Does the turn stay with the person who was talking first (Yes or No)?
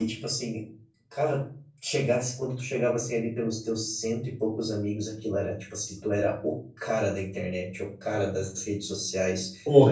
Yes